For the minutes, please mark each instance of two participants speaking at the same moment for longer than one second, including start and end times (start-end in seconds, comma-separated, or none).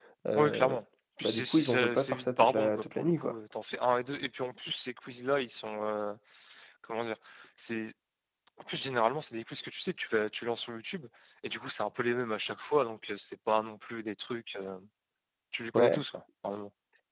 1.2-3.3